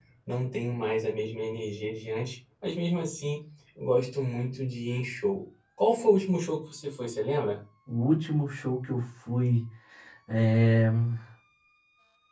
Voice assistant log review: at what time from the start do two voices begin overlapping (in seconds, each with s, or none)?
none